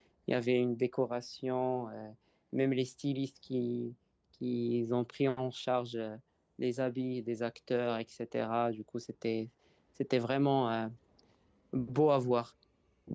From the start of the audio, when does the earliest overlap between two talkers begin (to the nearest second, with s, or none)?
none